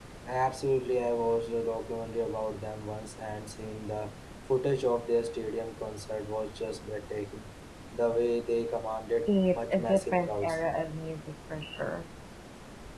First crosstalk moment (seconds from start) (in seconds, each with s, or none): 9.3 s